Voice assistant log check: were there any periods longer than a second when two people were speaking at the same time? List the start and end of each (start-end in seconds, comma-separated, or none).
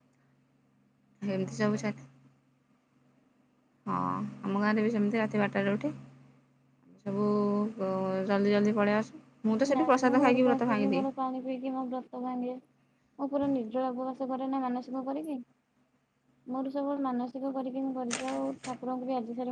9.7-11.0